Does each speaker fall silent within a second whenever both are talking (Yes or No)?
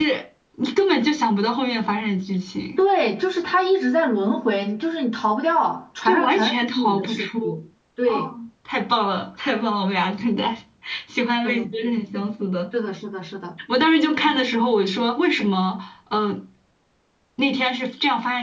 No